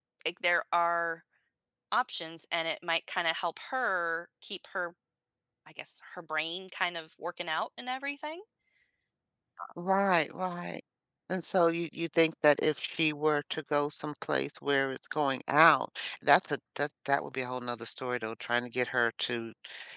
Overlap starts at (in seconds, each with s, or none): none